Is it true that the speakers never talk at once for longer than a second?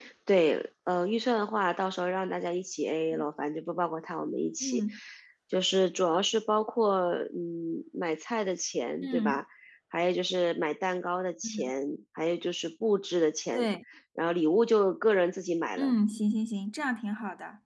Yes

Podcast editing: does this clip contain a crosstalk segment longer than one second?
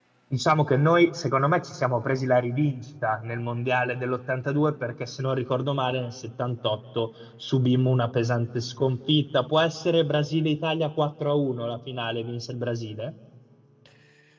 No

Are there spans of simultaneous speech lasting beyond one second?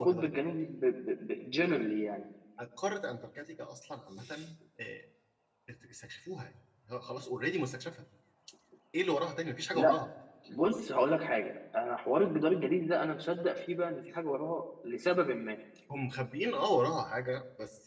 No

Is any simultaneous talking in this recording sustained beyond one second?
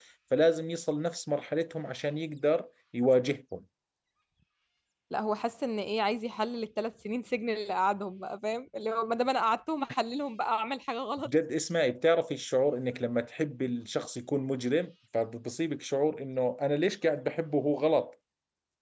No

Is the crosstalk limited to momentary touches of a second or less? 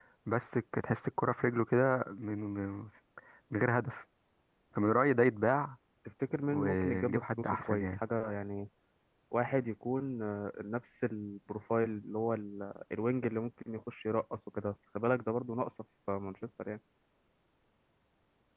No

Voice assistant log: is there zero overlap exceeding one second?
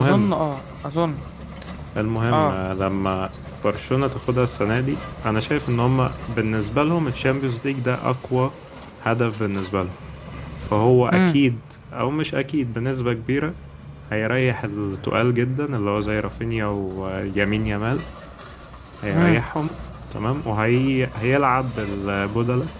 Yes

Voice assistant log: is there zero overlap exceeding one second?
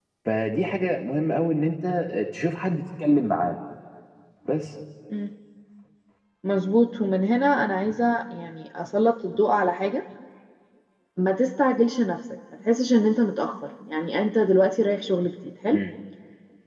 Yes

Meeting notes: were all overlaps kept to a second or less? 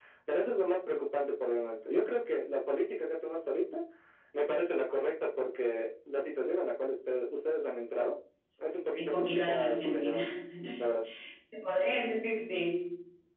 No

